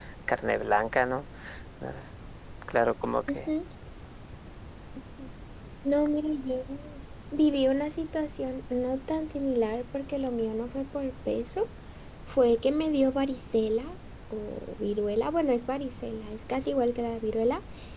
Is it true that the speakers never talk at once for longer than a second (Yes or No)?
Yes